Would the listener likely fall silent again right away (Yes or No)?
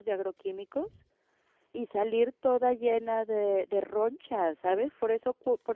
Yes